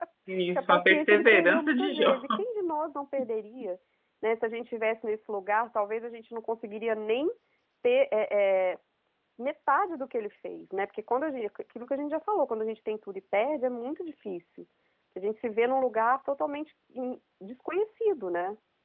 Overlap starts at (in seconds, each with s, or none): 0.6 s